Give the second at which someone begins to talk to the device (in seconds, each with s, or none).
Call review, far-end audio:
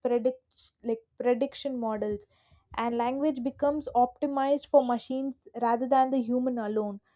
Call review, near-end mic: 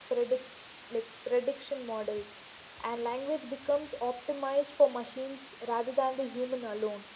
none